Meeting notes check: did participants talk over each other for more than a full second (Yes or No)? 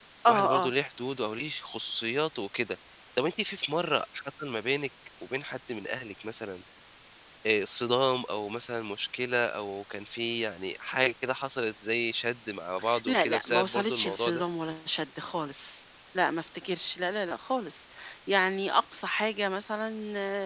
Yes